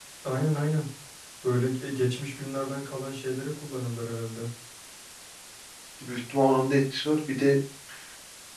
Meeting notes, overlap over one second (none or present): none